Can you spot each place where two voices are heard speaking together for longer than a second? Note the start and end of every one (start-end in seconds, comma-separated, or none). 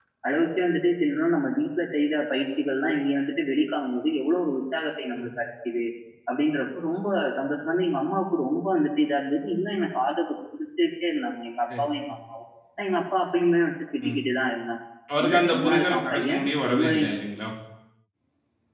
15.2-17.0